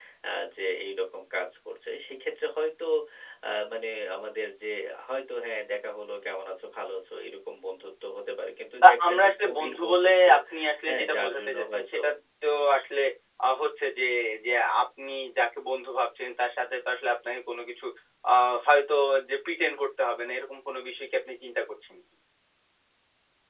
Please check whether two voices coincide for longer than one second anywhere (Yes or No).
Yes